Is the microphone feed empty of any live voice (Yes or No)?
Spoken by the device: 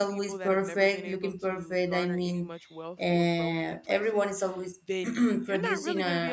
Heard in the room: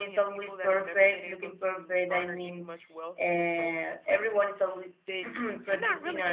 Yes